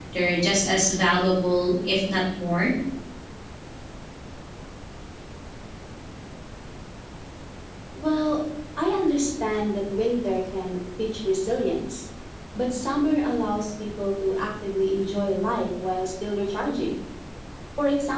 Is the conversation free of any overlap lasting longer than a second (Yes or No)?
Yes